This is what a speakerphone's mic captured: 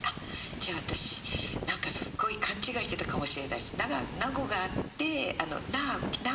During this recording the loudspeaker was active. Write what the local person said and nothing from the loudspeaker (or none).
none